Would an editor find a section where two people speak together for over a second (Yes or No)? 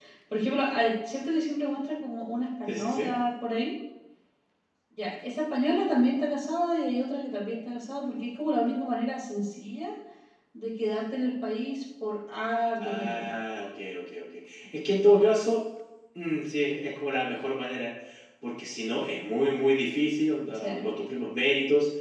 No